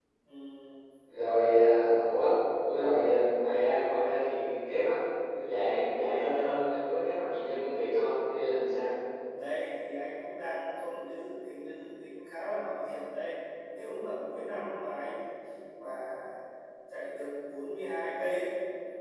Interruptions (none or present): none